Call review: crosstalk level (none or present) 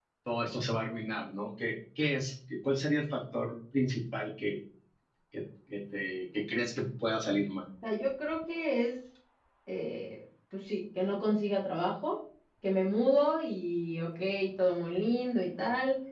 none